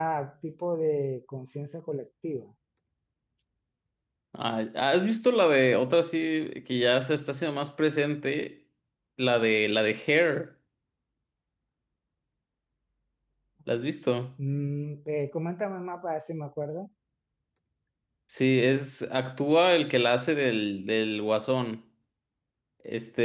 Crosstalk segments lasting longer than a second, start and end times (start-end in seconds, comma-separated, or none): none